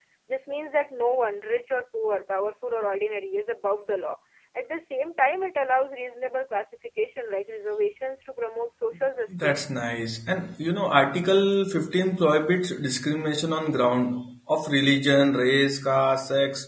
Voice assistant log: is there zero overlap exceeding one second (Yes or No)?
Yes